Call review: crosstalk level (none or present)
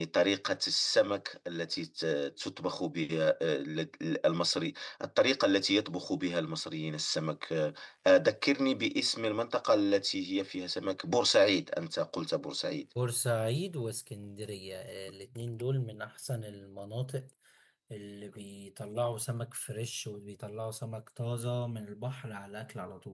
none